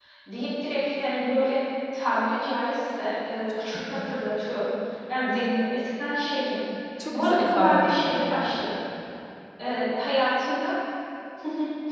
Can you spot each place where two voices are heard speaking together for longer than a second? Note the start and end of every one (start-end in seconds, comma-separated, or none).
7.1-8.6